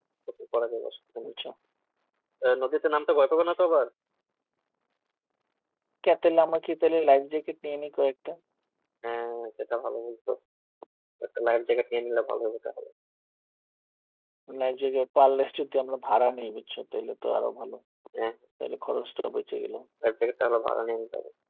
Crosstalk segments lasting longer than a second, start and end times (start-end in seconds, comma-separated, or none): none